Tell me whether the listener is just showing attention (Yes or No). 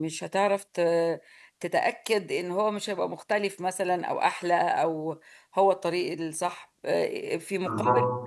Yes